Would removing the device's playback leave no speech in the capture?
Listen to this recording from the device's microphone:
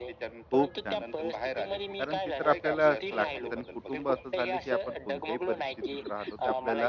No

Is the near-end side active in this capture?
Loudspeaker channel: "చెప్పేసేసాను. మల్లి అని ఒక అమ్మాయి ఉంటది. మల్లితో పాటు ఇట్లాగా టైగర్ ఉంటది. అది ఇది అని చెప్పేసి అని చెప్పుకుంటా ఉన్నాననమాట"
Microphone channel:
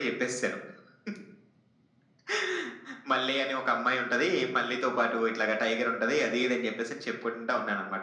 No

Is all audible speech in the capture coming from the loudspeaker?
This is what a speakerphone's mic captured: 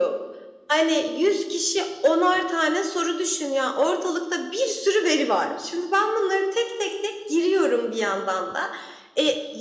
Yes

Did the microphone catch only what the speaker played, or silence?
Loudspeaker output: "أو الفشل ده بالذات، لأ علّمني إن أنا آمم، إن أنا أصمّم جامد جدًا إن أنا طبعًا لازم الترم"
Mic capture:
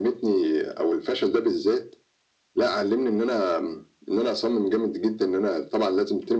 Yes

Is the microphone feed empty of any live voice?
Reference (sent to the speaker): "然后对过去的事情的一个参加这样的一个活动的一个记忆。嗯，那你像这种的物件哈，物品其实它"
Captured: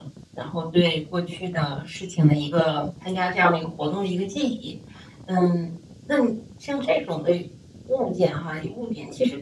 Yes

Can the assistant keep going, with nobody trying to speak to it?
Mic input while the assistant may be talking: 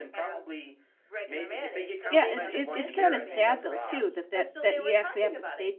No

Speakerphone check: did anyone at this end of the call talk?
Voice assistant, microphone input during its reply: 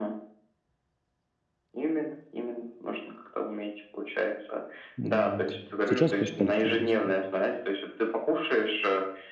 Yes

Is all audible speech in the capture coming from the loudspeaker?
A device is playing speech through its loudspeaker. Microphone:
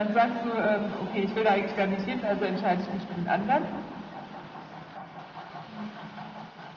Yes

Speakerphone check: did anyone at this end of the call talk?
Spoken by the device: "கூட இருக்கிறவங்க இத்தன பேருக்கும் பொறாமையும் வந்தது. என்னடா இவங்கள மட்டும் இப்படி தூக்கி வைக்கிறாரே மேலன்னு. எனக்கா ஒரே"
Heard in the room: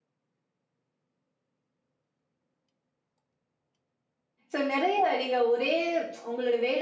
Yes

